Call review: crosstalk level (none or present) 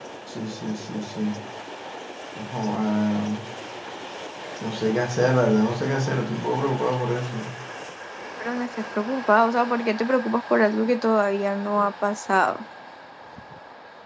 none